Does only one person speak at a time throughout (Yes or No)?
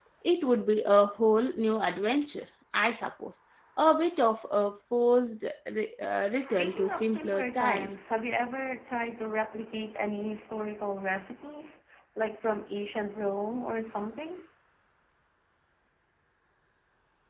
No